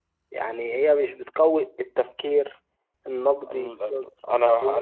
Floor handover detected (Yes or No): Yes